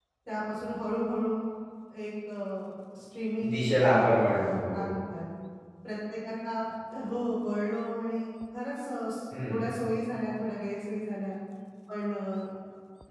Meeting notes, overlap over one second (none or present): present